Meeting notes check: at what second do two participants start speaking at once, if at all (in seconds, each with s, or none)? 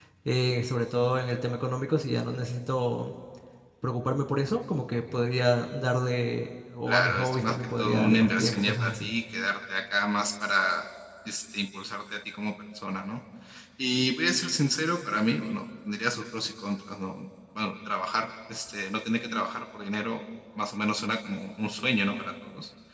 6.9 s